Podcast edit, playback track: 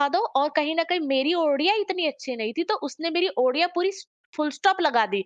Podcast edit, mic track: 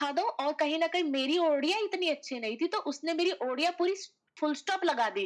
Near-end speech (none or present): none